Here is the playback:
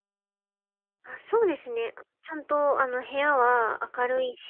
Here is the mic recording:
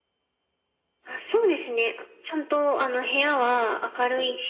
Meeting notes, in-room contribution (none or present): none